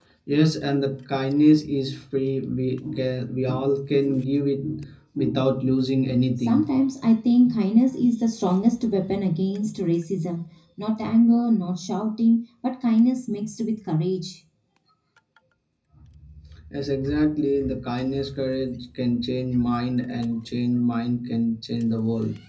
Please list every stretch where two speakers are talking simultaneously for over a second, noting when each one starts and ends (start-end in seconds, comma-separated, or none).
none